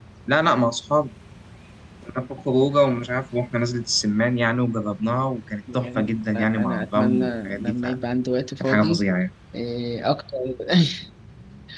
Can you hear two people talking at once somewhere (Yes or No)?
Yes